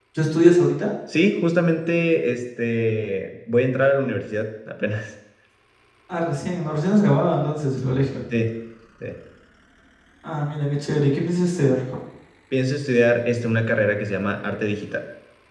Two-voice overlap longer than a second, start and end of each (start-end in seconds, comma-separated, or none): none